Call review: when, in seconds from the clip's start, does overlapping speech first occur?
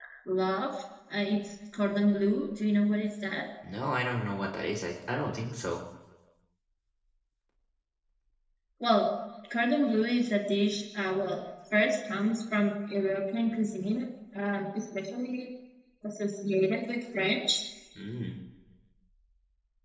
none

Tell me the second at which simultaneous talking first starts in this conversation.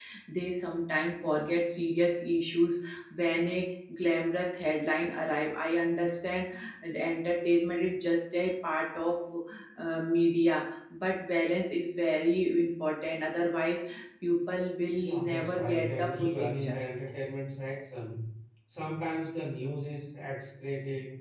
14.9 s

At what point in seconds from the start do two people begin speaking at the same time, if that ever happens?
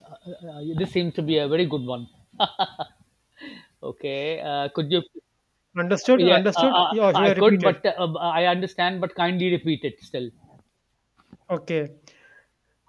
6.2 s

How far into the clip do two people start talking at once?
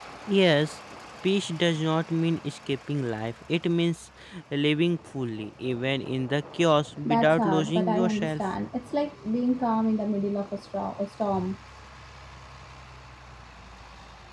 7.0 s

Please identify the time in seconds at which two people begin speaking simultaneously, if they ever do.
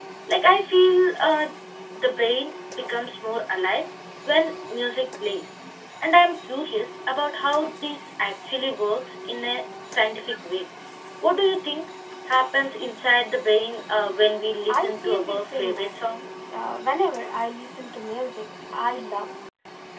14.7 s

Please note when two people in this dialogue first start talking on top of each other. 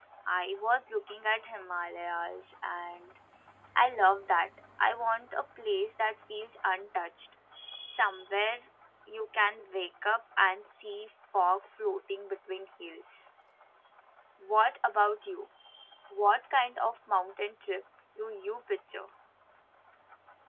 none

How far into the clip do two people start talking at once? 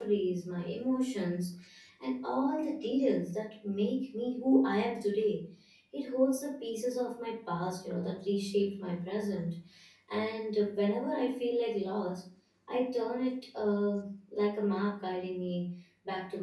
none

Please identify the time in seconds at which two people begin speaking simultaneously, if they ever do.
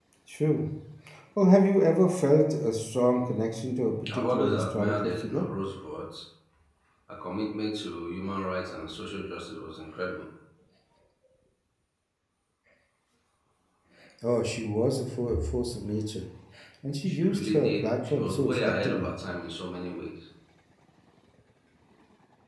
4.1 s

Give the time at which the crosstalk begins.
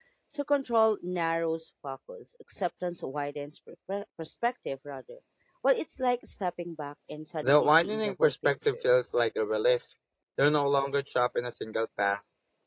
7.4 s

